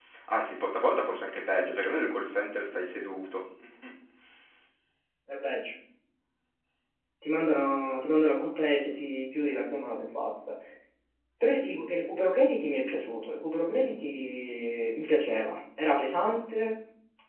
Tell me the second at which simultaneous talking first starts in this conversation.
none

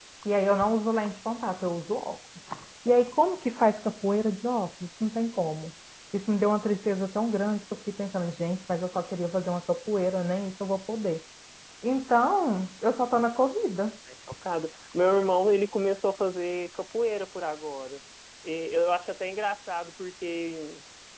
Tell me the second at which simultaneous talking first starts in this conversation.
none

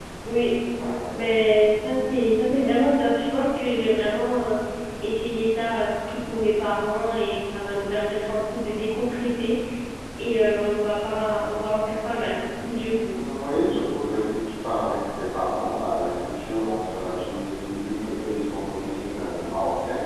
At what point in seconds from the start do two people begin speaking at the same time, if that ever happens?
none

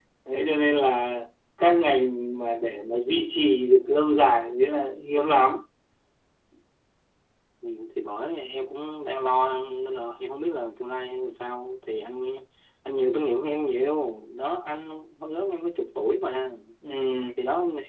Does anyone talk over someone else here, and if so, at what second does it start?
none

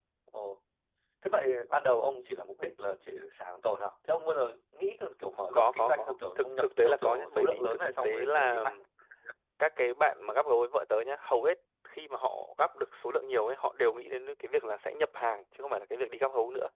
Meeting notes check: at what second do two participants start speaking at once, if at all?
5.5 s

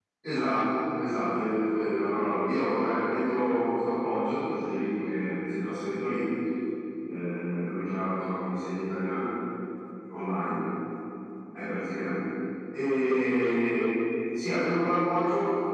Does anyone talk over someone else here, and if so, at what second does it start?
none

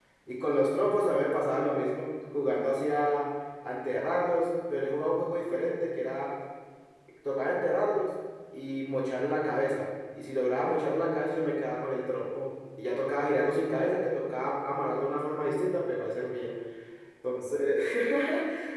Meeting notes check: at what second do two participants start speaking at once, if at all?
none

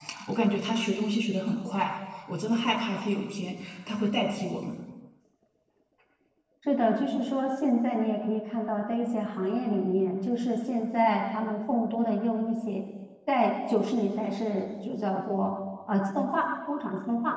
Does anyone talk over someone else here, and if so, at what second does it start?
none

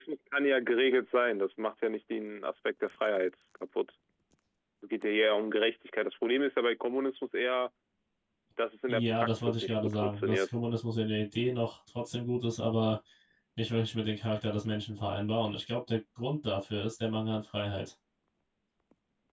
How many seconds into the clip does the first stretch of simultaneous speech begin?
8.9 s

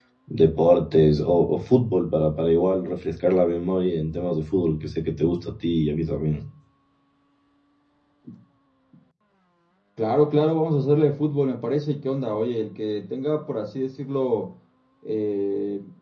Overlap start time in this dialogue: none

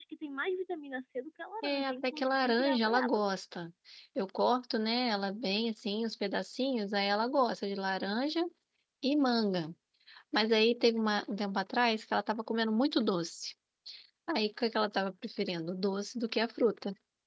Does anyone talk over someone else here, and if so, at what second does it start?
1.6 s

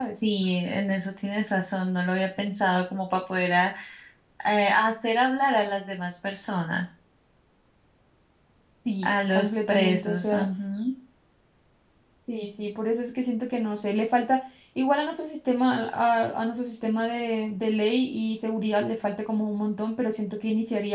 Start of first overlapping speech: 9.0 s

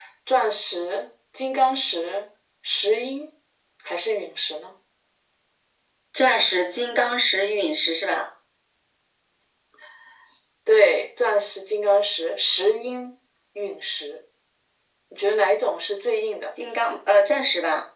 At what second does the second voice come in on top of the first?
none

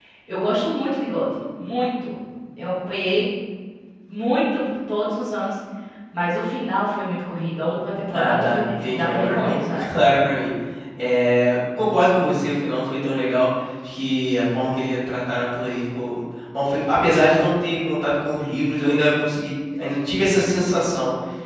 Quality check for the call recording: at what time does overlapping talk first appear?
8.1 s

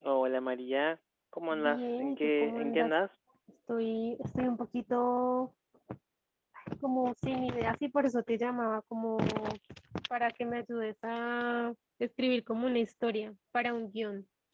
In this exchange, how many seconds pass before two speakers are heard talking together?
1.5 s

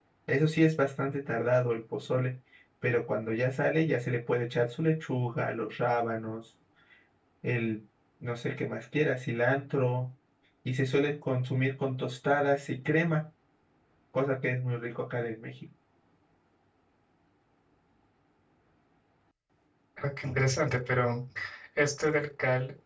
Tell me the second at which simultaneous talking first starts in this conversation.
none

